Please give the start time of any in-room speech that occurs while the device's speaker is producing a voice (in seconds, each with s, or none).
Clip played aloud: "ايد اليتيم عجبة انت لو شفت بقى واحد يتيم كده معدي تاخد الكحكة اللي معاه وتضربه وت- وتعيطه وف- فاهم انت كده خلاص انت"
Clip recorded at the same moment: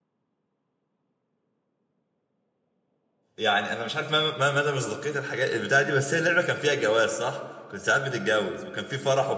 3.4 s